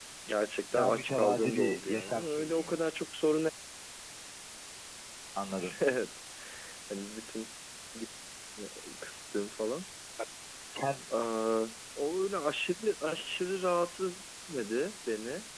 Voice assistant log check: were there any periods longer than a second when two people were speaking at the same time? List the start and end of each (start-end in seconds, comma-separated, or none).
0.8-2.7